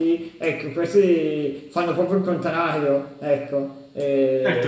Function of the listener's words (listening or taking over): taking over